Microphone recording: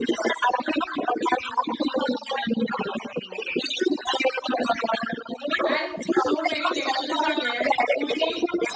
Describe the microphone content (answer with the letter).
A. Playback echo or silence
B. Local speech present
B